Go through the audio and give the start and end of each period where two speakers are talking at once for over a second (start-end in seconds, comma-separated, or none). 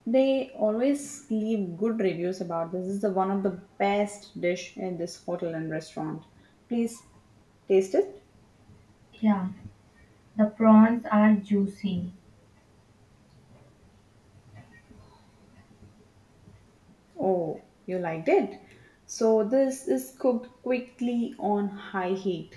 none